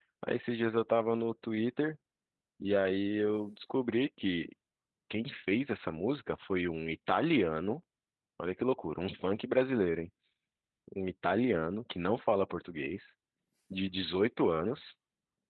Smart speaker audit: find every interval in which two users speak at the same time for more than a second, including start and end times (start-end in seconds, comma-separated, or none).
none